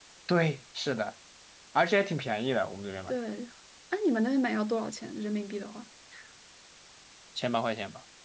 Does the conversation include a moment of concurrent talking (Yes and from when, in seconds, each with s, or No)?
No